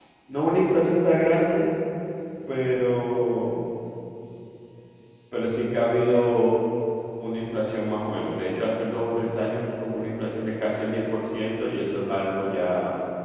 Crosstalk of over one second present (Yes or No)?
No